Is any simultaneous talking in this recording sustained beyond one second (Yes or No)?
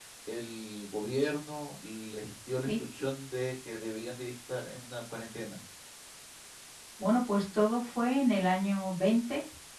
No